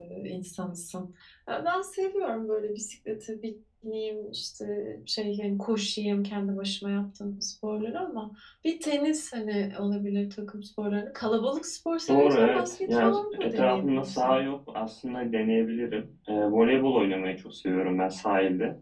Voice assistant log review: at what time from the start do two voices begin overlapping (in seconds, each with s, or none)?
12.1 s